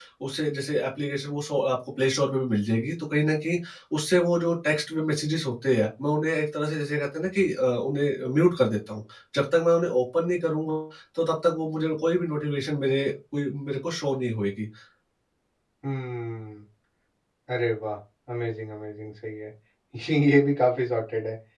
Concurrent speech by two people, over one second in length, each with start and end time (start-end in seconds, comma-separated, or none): none